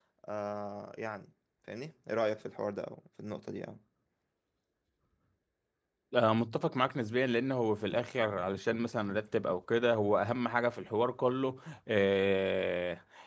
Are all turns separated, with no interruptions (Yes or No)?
Yes